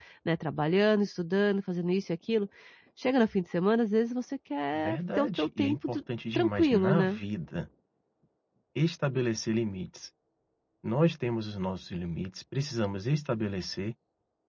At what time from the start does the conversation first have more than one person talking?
4.7 s

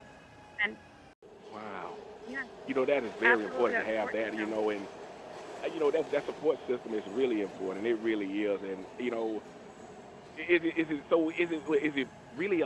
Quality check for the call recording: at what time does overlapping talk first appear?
3.2 s

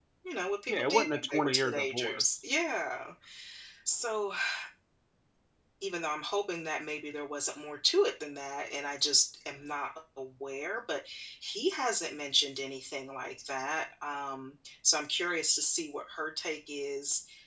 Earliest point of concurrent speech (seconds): 0.7 s

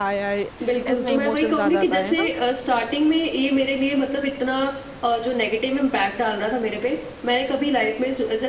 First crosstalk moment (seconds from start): 0.9 s

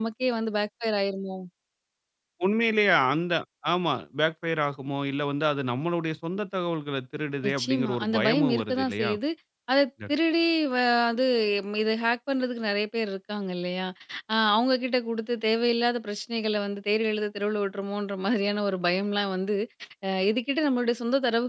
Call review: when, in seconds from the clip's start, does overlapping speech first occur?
7.4 s

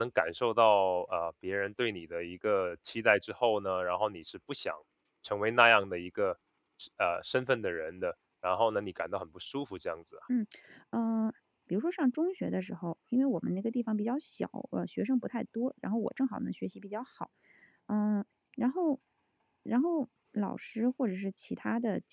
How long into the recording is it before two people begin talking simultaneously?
none

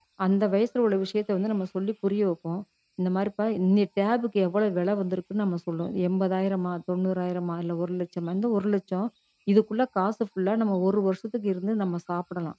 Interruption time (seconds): none

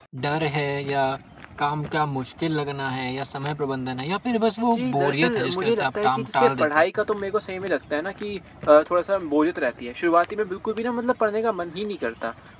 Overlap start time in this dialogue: 4.7 s

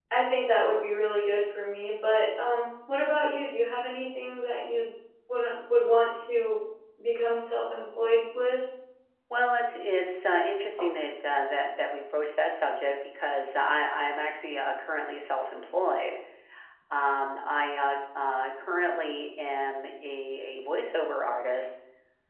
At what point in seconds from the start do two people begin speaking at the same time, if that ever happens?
none

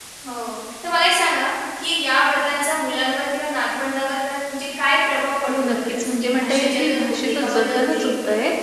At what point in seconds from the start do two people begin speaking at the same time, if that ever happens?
5.5 s

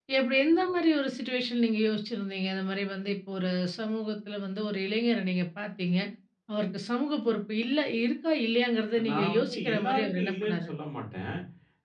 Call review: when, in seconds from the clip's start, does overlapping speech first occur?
9.0 s

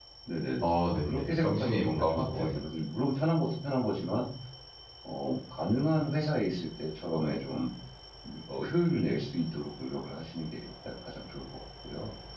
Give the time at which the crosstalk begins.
0.6 s

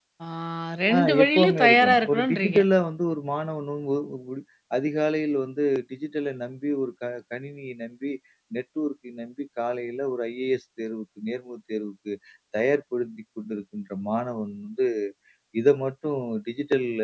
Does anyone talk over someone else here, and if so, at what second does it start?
1.0 s

